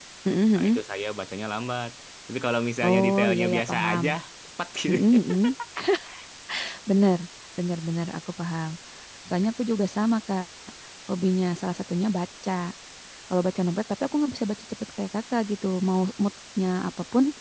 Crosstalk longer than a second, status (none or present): present